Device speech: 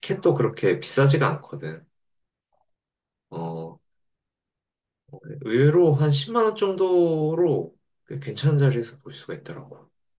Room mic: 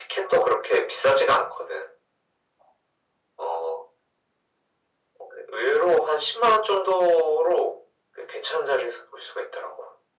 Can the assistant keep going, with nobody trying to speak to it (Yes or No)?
Yes